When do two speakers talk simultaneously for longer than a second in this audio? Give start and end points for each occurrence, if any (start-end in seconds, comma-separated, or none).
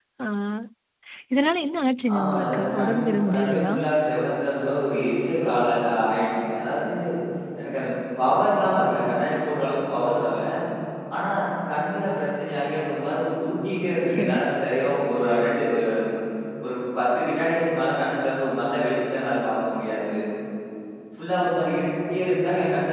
2.1-3.7